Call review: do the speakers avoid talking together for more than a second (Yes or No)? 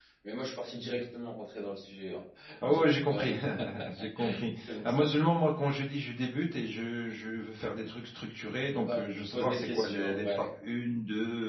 No